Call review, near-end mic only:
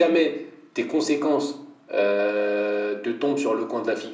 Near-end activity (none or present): none